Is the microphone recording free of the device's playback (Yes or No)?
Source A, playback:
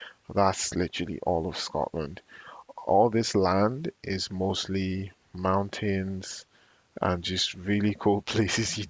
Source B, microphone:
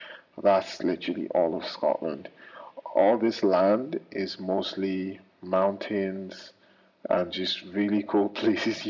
No